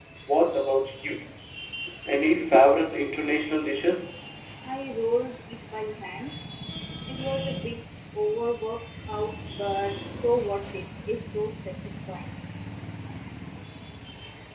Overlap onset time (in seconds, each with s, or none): none